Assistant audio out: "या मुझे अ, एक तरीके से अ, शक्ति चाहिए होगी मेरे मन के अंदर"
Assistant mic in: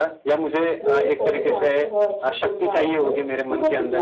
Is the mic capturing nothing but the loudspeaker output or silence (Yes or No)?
No